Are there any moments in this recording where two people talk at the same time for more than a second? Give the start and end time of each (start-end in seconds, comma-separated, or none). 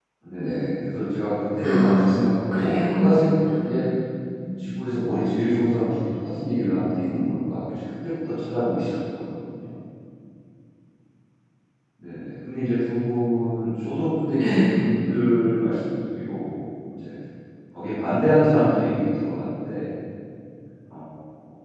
1.6-3.2